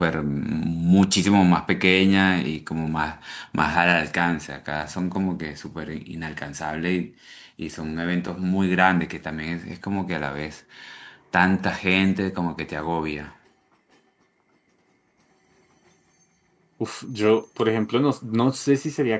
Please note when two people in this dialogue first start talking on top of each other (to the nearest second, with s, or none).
none